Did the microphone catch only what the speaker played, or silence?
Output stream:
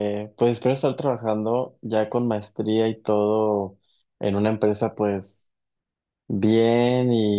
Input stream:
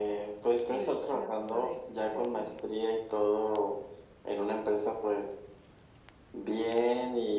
No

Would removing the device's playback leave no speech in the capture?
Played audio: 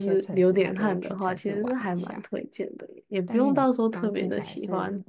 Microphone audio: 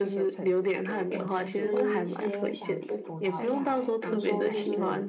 No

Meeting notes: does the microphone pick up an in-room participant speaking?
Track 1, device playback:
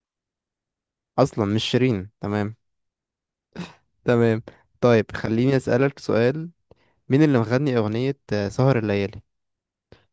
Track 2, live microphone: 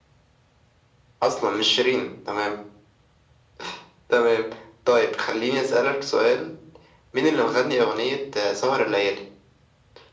No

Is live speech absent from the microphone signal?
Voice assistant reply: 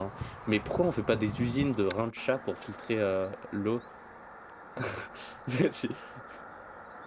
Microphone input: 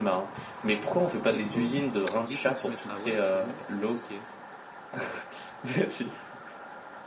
No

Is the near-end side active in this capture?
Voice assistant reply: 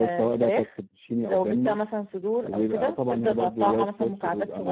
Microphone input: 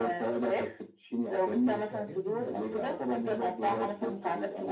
Yes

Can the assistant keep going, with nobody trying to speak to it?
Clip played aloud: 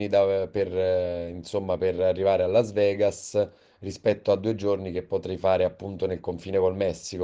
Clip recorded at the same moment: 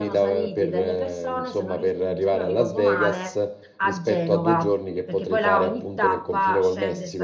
No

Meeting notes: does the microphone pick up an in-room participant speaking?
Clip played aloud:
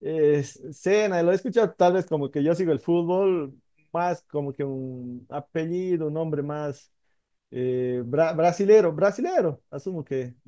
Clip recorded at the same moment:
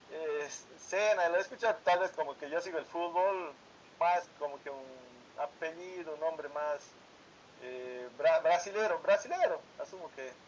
No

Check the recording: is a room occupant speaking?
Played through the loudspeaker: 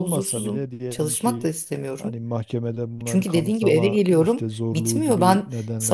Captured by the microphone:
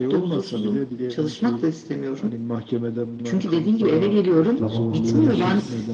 Yes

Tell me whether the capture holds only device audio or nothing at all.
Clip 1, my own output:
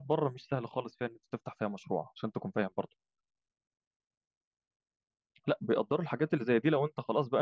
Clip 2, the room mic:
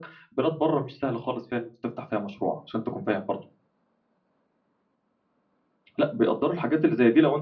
Yes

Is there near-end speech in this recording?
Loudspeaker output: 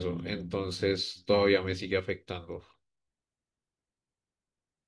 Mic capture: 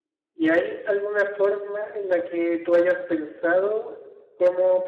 Yes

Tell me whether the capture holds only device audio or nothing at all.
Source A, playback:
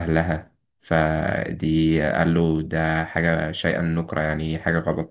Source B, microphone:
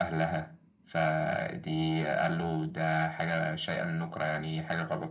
Yes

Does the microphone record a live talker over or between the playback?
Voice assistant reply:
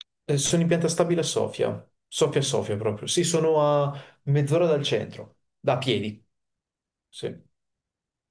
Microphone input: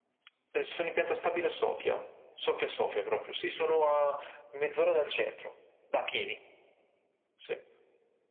No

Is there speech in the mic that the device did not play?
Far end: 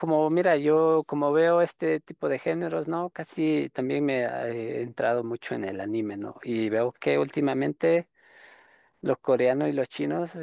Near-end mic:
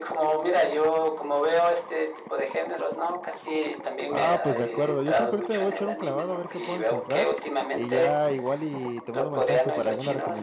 Yes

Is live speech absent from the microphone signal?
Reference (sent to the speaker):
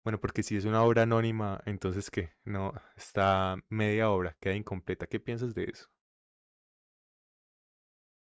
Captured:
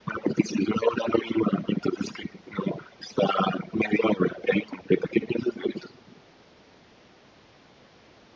Yes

